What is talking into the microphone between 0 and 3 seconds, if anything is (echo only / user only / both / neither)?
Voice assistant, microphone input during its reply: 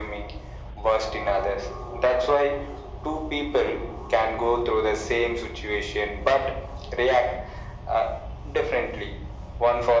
echo only